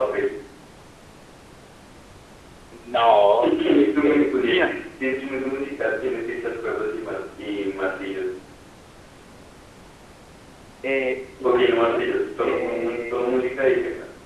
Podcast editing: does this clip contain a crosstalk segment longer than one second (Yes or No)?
Yes